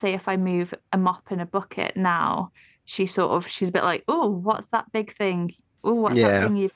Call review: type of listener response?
listening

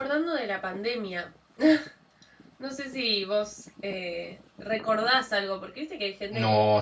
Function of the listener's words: taking over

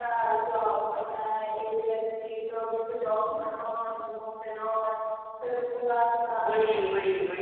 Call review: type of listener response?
taking over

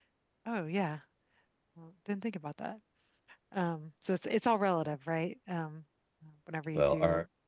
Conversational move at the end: taking over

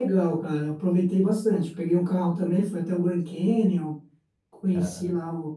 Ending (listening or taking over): listening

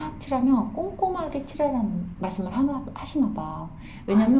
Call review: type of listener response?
listening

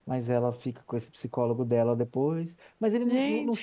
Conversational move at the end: listening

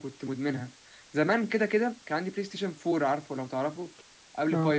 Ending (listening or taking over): listening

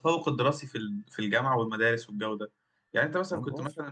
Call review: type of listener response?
listening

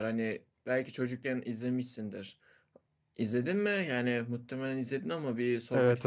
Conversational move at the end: taking over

